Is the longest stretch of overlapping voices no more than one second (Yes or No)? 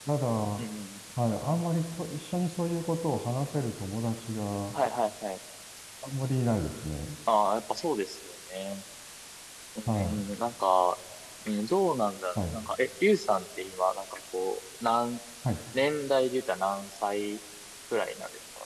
Yes